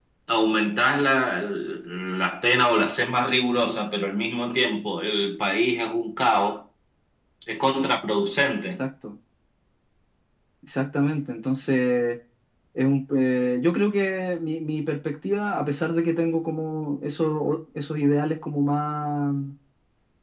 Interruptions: none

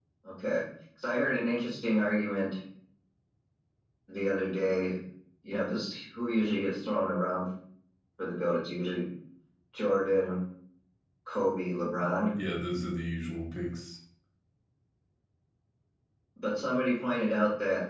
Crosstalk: none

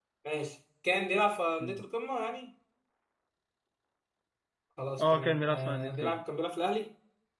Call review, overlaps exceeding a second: present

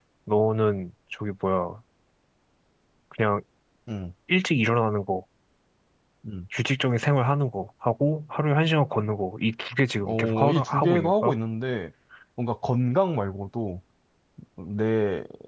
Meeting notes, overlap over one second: present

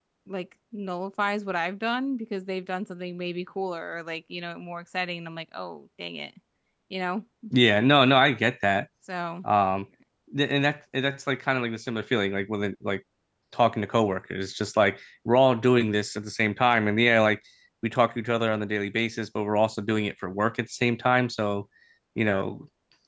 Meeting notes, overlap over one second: none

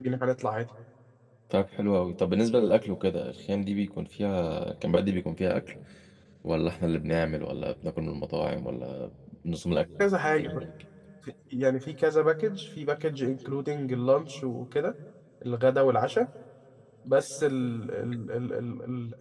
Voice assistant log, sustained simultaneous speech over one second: none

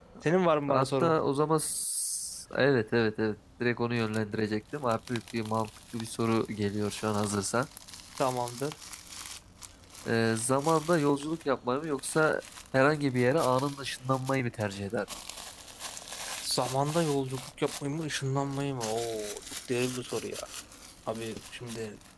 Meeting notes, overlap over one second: none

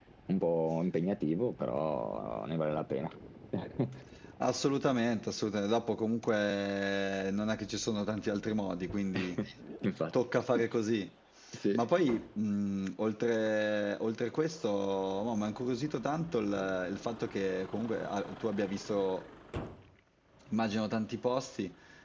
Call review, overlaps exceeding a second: none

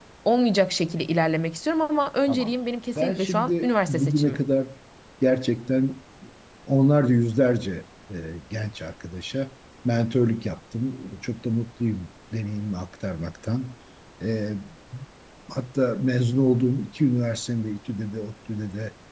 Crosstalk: present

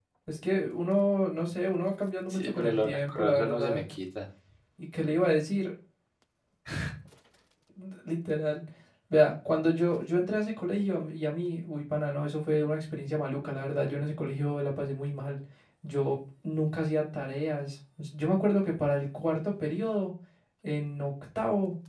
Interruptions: present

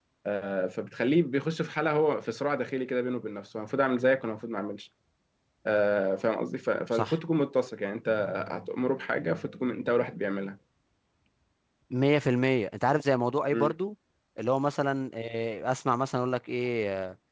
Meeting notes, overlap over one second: none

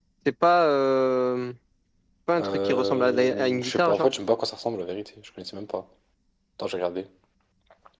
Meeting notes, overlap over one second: present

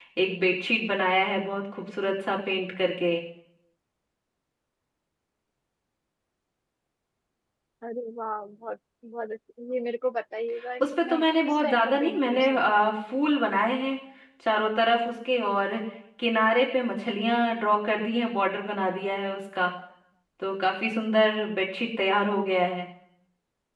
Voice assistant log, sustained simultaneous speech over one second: present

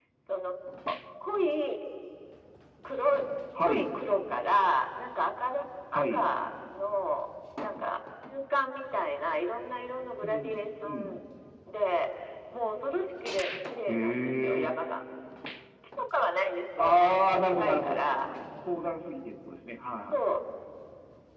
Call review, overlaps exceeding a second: present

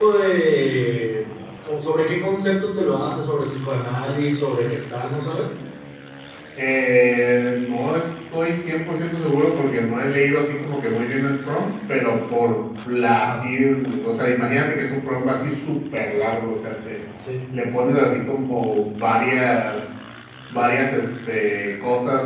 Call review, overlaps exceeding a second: none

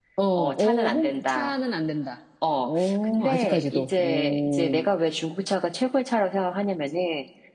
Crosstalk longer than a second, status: present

